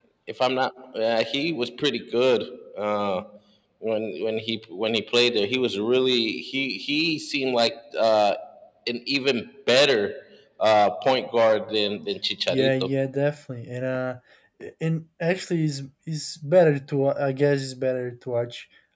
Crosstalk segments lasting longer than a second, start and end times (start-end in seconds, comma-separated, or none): none